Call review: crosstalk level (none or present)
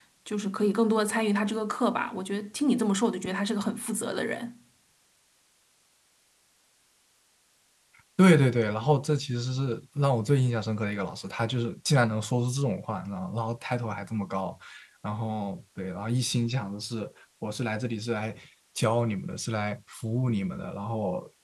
none